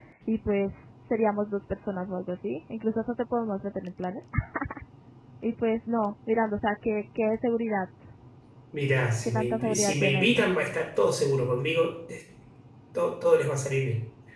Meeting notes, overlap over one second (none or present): present